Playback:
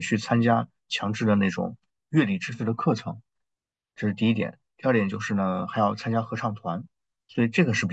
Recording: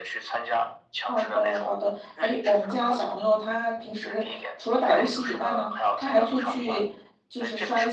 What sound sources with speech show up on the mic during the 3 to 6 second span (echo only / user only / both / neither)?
both